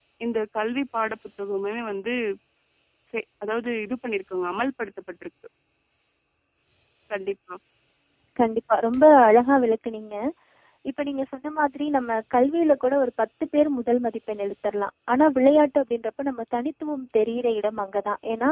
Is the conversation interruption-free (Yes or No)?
Yes